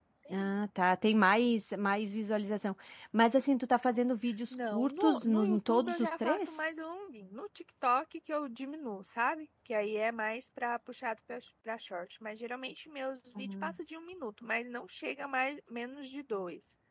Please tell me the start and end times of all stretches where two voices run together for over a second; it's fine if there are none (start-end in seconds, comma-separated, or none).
4.5-6.6